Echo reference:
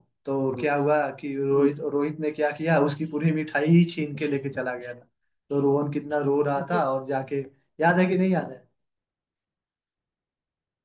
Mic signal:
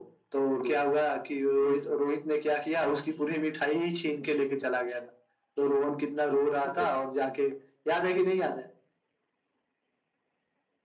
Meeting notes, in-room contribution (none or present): none